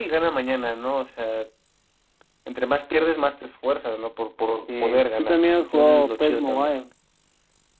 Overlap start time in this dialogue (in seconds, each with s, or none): 4.7 s